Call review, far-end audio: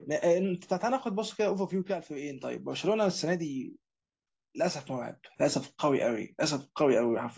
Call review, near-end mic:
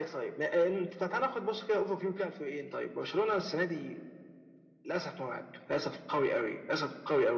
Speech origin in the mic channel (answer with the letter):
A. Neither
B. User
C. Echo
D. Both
C